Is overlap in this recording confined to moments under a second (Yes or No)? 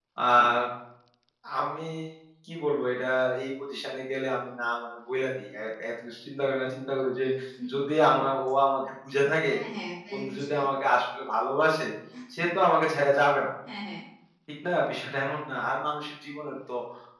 Yes